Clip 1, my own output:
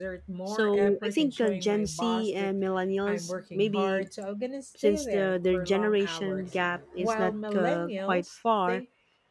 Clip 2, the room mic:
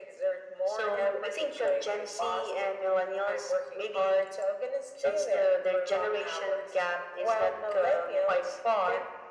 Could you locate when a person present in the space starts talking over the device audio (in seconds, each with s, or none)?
none